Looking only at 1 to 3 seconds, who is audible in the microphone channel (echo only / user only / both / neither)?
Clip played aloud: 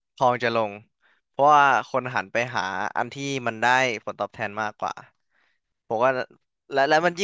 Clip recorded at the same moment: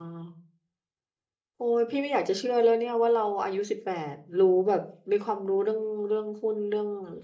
user only